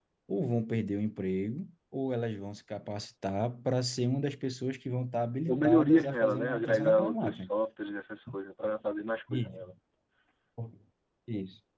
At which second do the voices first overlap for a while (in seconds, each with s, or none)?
5.5 s